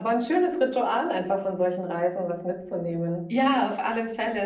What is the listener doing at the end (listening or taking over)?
taking over